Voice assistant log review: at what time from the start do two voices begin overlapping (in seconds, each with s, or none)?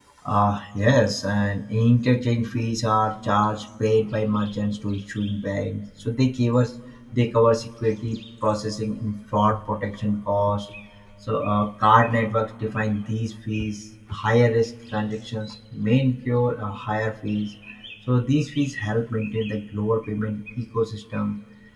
none